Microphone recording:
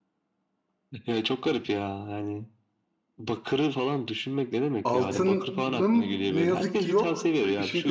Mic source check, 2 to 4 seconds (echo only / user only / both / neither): echo only